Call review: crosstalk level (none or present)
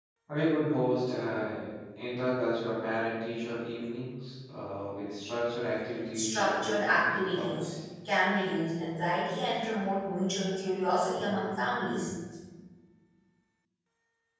present